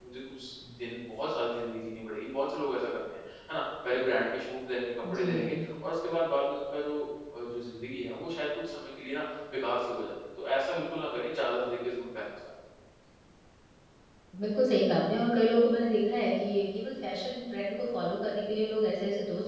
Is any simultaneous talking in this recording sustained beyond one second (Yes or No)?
No